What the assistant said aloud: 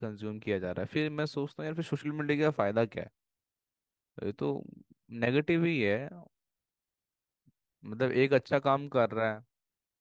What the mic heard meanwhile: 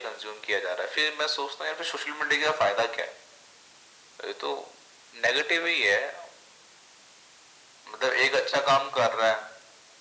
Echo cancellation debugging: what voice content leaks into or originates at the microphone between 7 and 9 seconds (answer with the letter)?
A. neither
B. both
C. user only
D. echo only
D